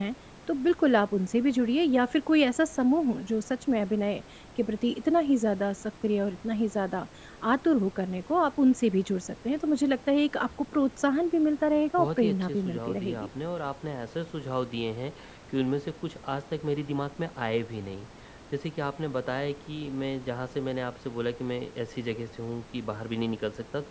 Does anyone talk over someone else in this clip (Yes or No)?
Yes